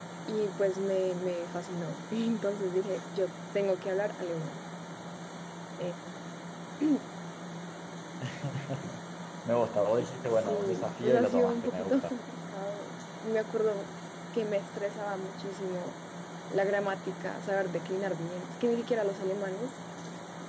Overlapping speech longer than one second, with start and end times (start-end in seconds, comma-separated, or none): 10.3-12.1